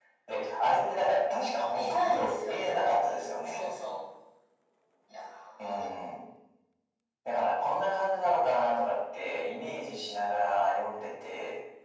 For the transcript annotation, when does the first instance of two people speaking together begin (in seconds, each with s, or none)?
1.7 s